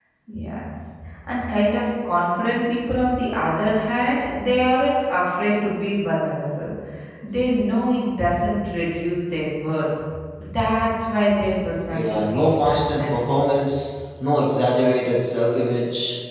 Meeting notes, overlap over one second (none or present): present